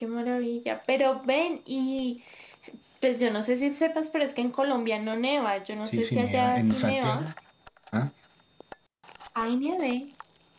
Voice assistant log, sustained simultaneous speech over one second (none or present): present